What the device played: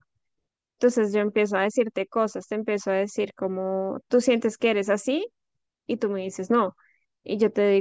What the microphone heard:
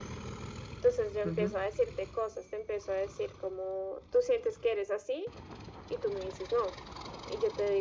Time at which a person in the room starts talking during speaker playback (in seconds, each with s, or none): 1.2 s